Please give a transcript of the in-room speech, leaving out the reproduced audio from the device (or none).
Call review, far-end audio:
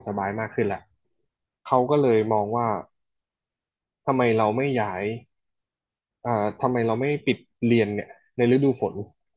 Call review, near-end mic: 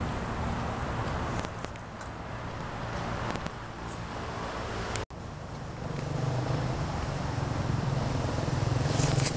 none